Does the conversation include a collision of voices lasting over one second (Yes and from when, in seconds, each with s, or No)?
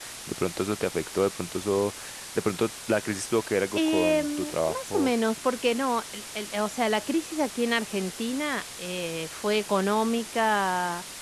Yes, from 3.8 s